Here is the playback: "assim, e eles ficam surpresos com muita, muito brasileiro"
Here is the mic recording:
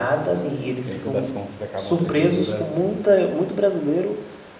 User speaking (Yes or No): Yes